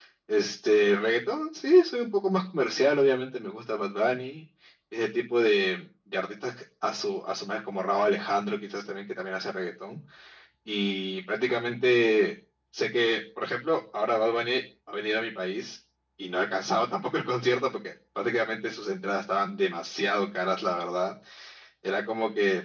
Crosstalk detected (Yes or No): No